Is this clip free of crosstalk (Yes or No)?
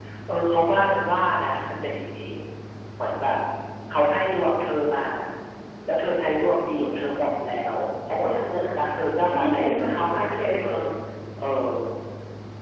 No